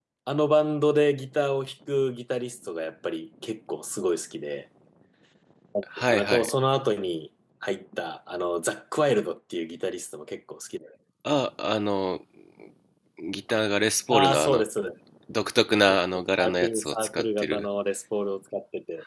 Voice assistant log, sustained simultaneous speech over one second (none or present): present